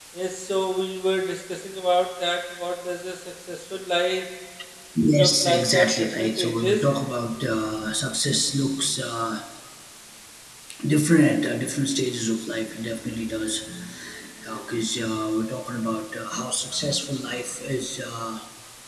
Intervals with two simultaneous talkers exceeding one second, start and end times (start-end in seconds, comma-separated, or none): 5.2-6.9